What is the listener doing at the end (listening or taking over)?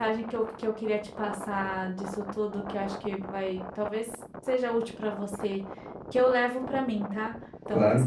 listening